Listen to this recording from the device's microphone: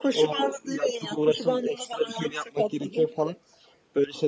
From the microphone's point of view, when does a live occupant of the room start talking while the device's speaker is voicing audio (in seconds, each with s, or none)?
none